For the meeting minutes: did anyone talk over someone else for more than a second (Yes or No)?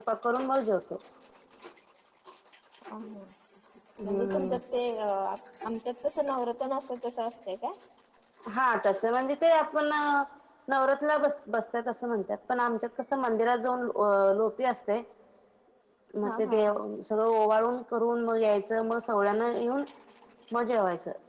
No